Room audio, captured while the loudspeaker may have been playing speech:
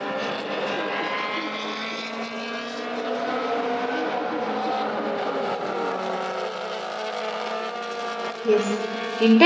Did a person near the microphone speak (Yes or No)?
Yes